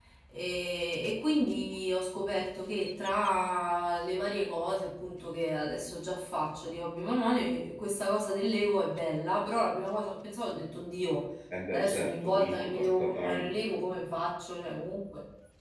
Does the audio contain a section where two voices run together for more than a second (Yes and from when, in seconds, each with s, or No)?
Yes, from 11.7 s